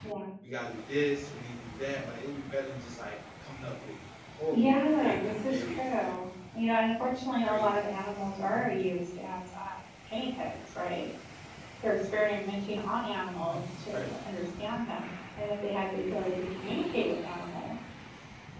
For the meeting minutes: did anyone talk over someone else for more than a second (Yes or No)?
Yes